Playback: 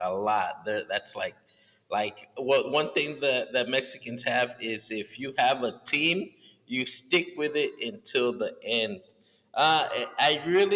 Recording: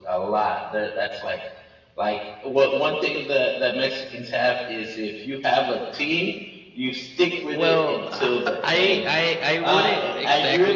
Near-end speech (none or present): present